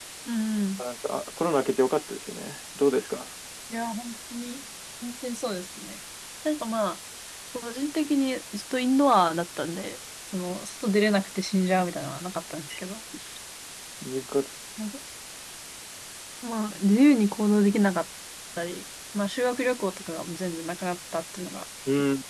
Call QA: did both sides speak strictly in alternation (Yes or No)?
Yes